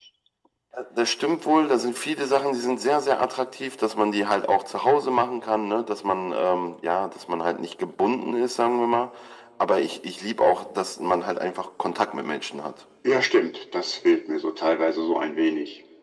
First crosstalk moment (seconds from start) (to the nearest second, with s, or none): none